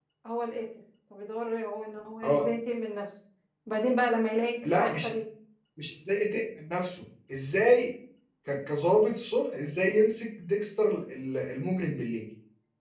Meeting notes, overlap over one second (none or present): none